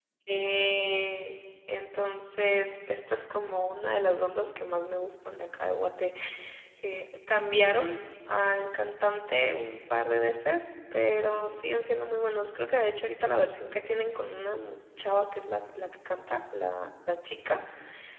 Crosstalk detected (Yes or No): No